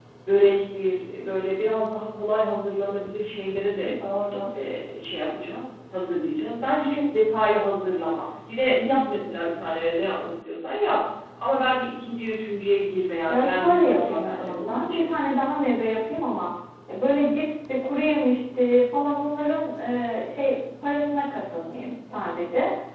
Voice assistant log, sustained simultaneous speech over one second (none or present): present